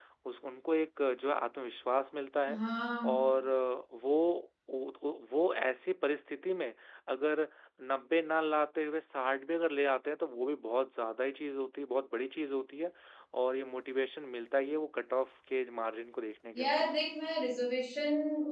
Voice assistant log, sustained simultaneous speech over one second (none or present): none